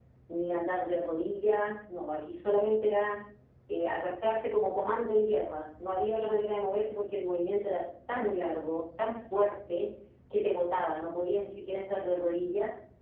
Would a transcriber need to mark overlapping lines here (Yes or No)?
No